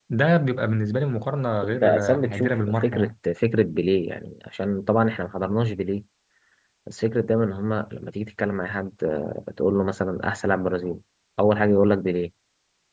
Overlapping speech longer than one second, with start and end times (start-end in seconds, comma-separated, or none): 1.7-3.1